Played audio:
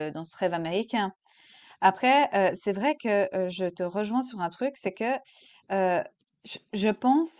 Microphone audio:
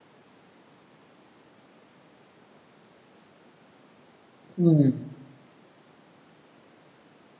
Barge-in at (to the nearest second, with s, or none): 5 s